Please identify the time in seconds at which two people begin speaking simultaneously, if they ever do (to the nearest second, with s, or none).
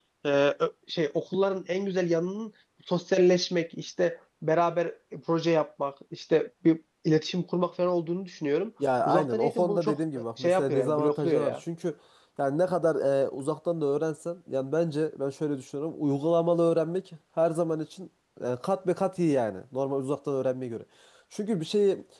9 s